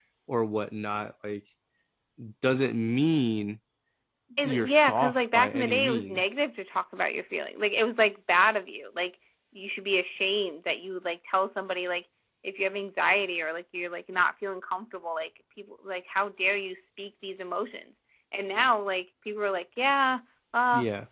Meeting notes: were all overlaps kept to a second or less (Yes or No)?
No